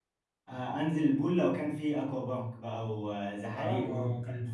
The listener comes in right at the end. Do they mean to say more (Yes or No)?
Yes